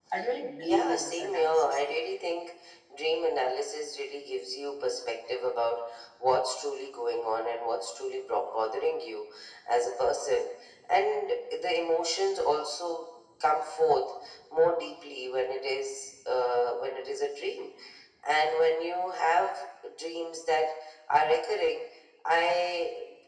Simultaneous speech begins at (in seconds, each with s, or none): 0.6 s